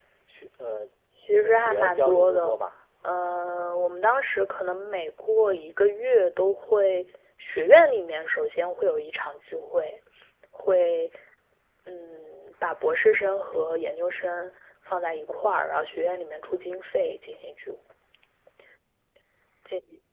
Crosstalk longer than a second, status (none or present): present